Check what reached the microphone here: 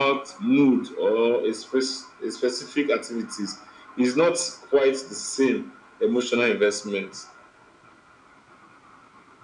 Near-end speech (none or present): none